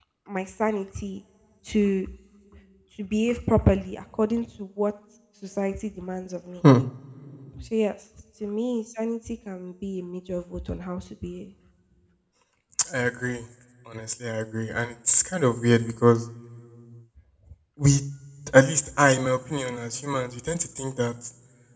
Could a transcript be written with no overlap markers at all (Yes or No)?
Yes